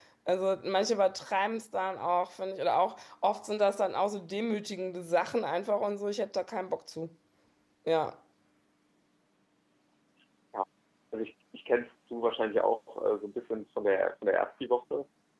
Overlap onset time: none

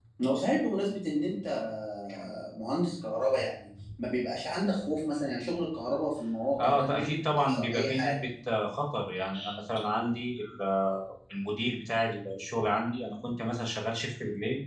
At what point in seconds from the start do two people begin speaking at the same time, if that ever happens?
6.6 s

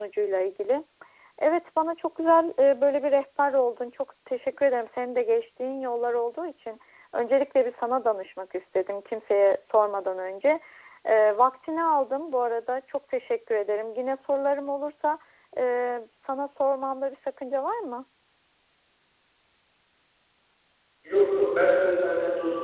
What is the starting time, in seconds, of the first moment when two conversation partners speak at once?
none

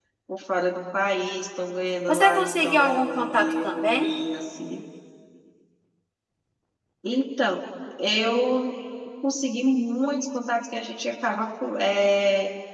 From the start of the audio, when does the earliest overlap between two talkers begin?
2.1 s

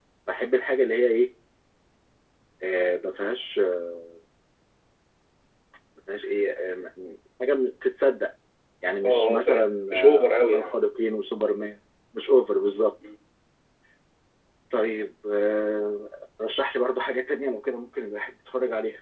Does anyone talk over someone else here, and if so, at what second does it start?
9.0 s

